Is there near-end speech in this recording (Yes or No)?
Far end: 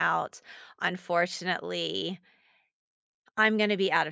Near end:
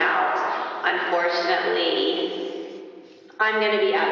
No